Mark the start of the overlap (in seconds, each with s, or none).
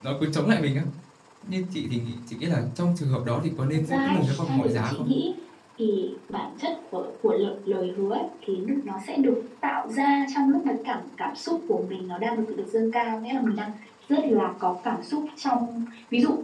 3.9 s